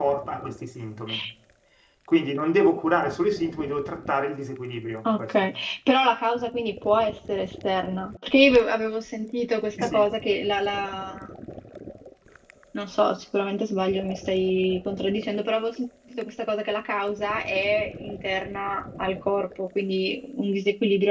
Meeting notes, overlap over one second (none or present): none